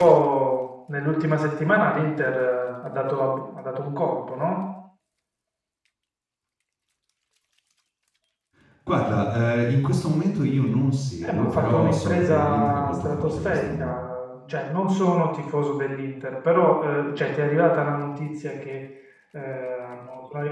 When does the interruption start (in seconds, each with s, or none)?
11.2 s